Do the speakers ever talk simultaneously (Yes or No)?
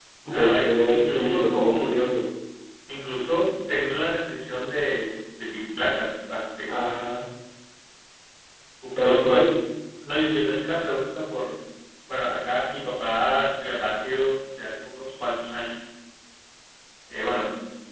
Yes